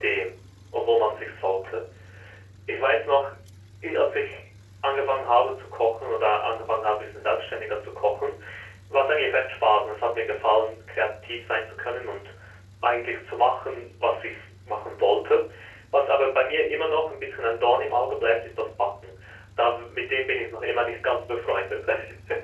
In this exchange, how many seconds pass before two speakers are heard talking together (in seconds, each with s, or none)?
none